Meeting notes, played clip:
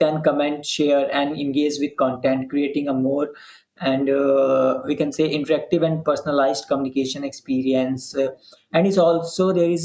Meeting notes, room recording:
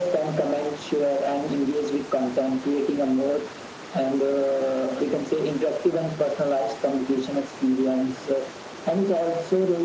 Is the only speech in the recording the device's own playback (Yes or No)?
Yes